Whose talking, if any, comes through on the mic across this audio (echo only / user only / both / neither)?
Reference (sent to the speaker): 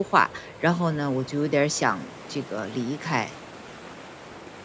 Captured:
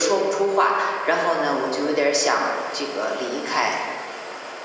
echo only